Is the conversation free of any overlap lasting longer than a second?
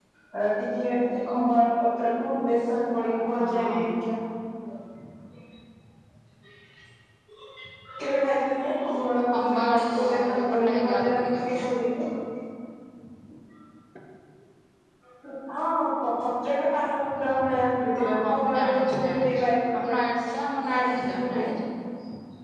No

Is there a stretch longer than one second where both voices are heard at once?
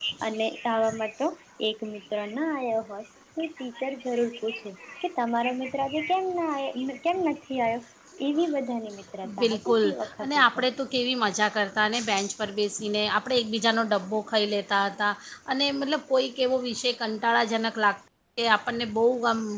Yes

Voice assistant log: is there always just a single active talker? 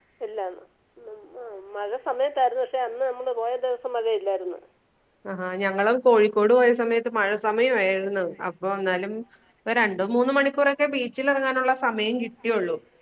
Yes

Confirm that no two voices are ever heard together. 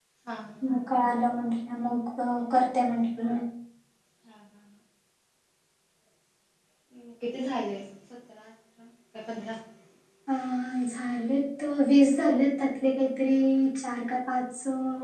Yes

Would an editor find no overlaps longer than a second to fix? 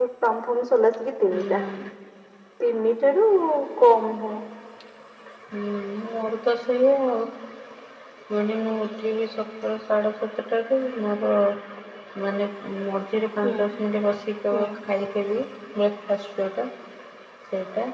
Yes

